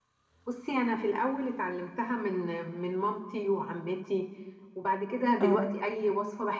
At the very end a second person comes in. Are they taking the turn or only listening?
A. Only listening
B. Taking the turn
A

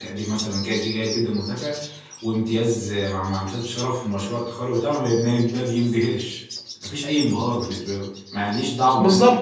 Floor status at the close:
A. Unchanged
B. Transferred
B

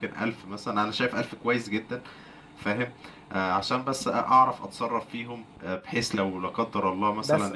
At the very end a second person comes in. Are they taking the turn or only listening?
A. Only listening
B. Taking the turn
A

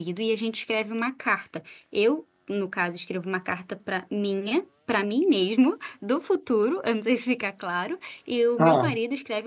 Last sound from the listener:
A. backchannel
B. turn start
A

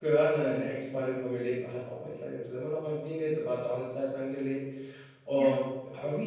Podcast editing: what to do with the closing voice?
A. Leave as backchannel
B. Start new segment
A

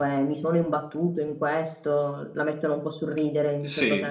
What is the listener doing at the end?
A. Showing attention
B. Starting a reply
B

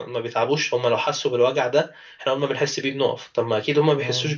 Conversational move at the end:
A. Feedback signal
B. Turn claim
A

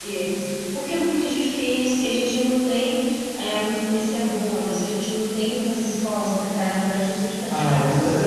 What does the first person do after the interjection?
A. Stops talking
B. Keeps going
A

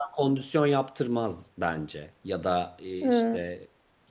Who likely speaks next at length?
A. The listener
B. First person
B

